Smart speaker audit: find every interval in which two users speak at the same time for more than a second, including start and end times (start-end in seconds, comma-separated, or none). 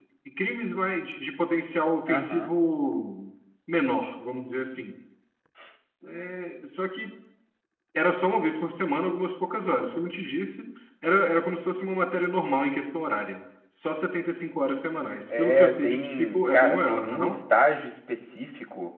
15.4-17.4